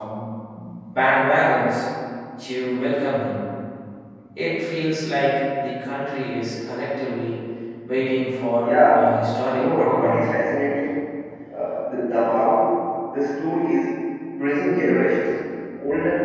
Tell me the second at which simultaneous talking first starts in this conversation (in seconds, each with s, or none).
8.6 s